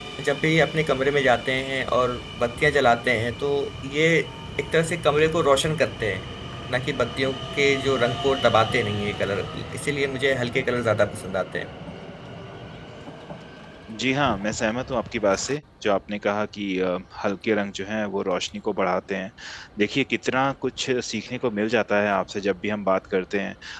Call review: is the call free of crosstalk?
Yes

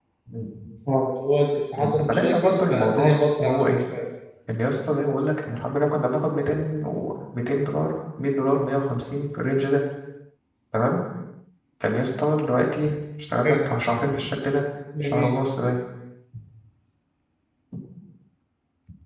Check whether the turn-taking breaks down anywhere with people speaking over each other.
Yes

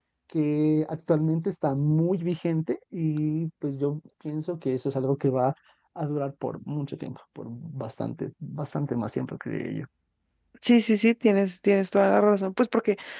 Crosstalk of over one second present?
No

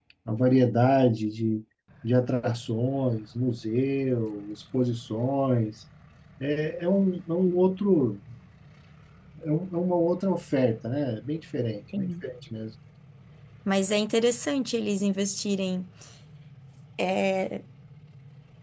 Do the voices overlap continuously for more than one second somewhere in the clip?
No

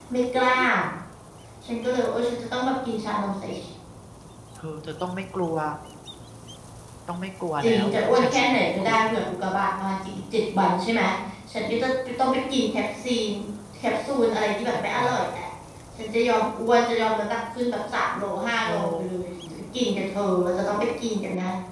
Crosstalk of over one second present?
Yes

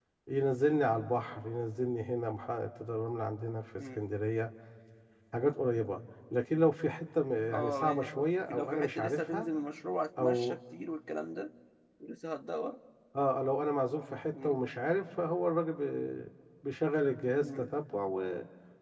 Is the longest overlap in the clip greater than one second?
Yes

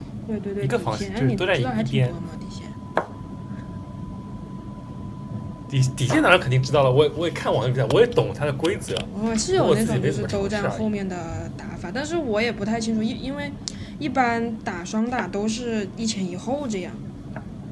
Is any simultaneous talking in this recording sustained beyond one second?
Yes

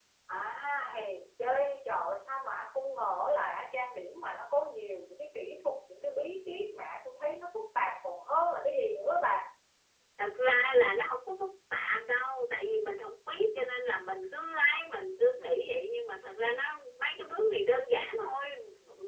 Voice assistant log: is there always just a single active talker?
Yes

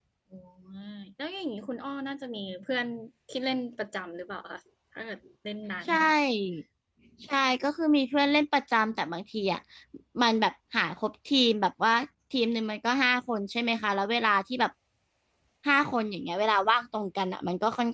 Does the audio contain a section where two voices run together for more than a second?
No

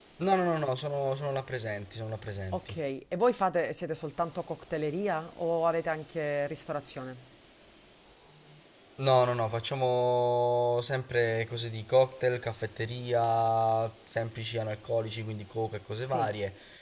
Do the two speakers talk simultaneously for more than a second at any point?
No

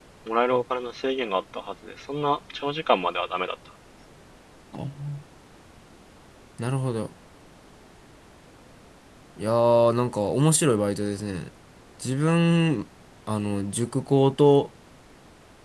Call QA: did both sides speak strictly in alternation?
Yes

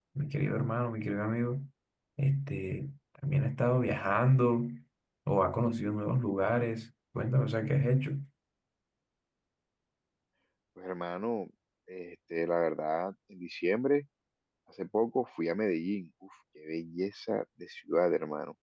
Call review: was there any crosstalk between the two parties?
No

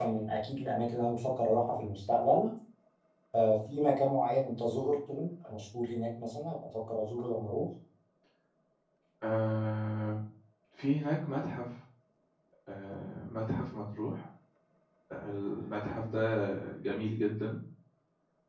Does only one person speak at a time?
Yes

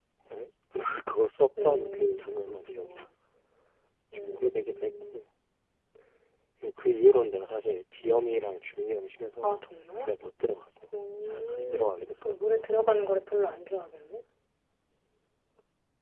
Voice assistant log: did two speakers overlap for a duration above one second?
Yes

